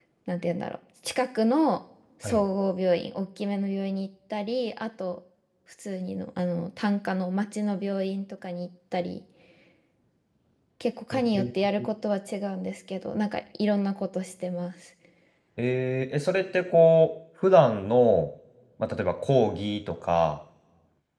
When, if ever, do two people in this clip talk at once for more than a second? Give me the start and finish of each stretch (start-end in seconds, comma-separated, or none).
none